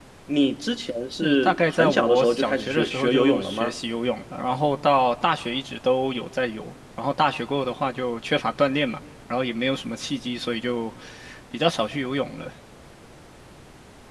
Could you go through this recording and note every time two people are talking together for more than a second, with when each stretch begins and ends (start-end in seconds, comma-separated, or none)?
1.2-3.7